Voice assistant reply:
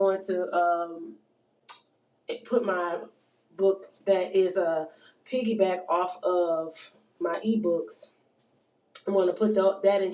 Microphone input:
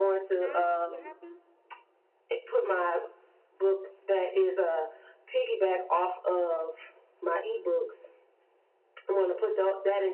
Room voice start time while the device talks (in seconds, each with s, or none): 0.4 s